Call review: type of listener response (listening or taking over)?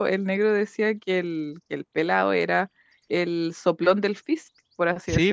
taking over